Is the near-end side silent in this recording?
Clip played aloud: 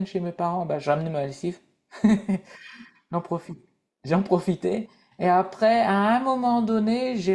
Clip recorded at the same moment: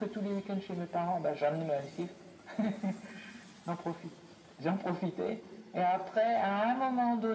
Yes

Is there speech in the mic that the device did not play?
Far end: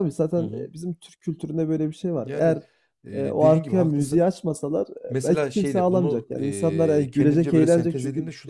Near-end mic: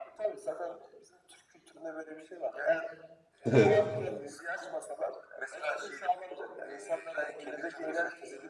Yes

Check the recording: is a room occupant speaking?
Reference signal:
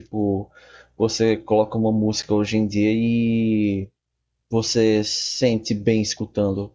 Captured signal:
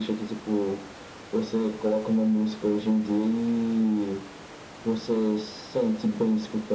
No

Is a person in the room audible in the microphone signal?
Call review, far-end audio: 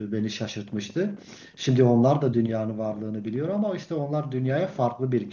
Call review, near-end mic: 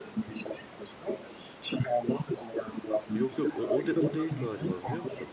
Yes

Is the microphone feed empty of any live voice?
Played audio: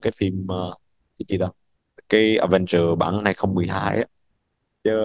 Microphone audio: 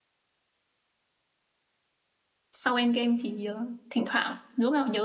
No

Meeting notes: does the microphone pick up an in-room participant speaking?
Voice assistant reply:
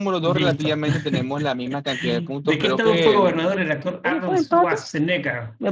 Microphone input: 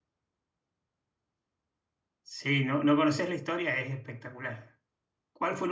Yes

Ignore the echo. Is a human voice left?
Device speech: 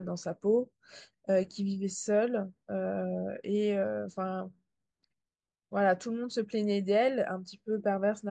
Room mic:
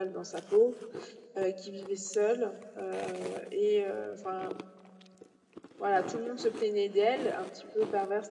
No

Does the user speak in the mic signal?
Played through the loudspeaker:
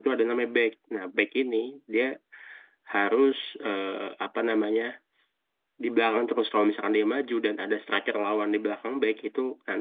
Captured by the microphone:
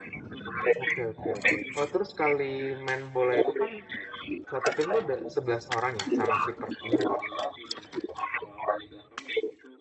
Yes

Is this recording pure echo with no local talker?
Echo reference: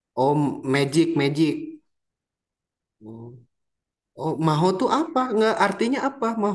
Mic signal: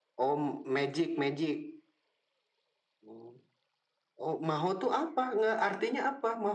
Yes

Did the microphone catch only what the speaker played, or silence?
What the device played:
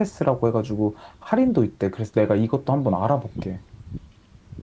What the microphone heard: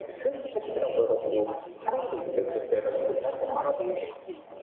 No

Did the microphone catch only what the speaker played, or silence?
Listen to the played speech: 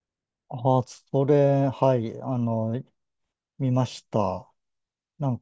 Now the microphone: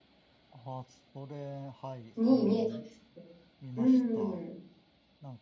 No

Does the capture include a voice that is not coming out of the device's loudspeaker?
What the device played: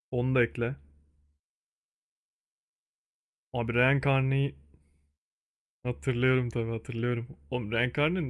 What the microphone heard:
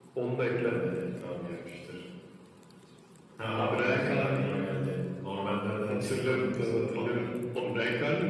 Yes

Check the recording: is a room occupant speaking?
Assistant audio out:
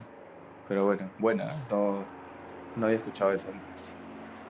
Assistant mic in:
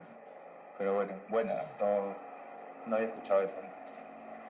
No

